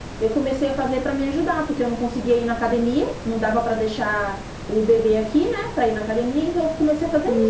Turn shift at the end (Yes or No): Yes